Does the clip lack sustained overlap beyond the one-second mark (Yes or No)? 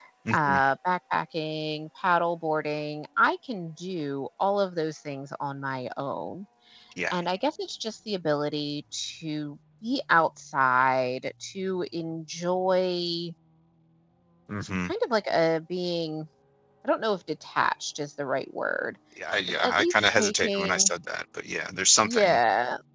No